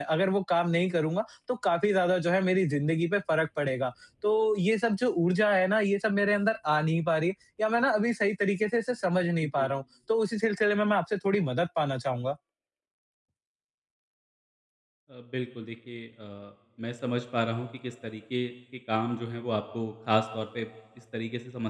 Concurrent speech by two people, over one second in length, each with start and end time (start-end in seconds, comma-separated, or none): none